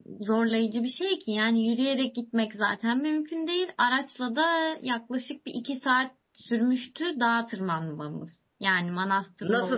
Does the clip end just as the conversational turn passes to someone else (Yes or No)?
Yes